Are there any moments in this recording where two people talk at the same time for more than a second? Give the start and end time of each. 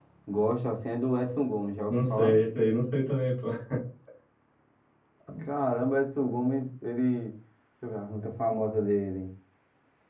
none

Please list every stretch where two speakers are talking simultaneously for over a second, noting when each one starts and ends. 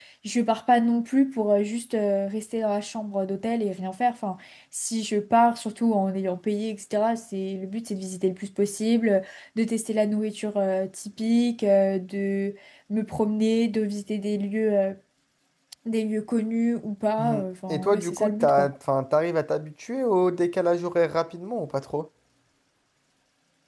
17.2-18.7

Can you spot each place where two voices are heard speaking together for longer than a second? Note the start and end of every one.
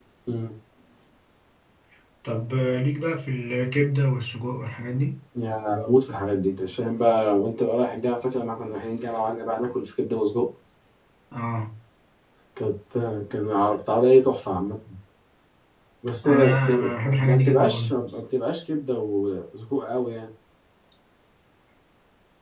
16.2-17.9

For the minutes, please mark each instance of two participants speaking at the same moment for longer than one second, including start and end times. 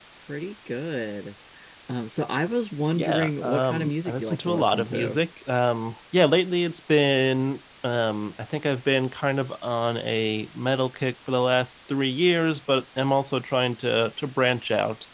2.9-5.2

